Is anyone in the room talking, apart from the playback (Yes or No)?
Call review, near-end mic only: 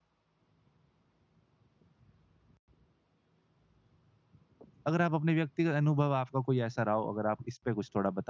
Yes